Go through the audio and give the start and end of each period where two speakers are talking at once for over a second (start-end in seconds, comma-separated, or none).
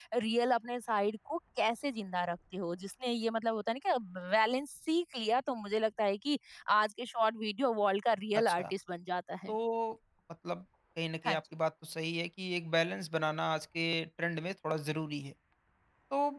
none